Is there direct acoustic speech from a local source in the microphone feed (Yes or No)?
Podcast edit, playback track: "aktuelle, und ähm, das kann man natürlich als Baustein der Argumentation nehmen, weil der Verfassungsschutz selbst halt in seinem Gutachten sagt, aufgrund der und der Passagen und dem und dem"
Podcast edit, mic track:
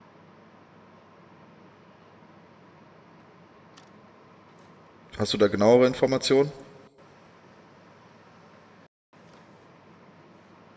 Yes